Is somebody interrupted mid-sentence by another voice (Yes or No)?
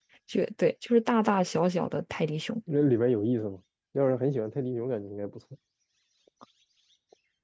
No